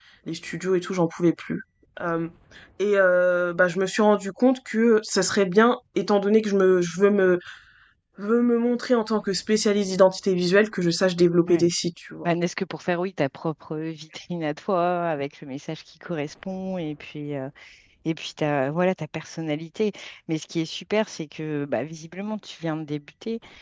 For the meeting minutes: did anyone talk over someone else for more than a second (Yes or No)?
No